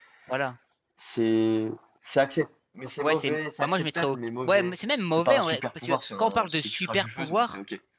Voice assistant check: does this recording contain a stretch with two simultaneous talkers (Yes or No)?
Yes